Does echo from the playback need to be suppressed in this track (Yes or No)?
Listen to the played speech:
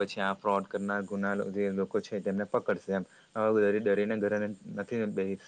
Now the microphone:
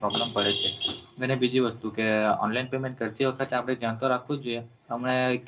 No